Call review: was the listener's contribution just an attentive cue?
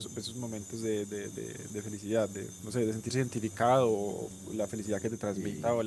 Yes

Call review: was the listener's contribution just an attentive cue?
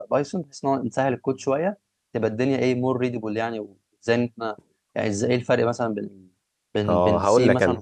No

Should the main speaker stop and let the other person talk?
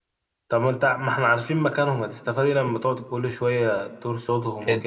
Yes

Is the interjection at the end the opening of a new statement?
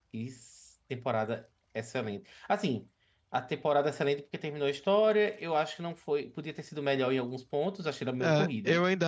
Yes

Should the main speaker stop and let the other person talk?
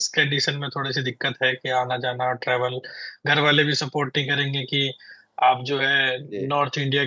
No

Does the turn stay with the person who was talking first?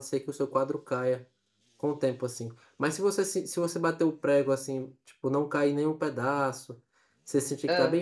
Yes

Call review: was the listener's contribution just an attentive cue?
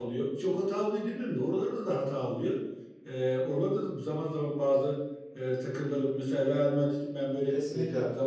Yes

